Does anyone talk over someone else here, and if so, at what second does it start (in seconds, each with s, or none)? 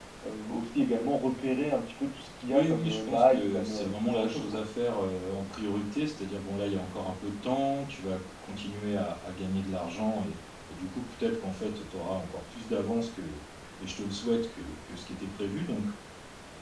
2.5 s